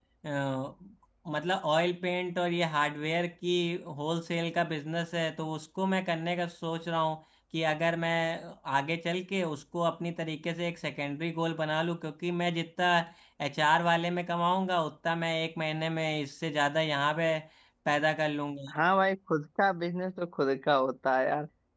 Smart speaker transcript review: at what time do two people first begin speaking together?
none

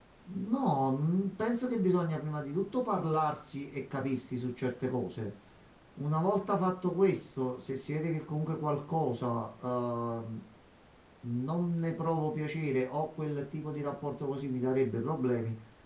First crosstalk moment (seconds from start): none

